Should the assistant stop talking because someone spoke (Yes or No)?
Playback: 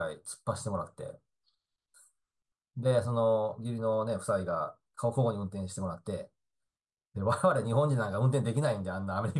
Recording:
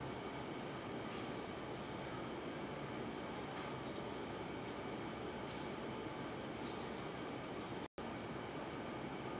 No